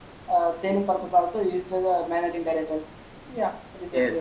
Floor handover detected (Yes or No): Yes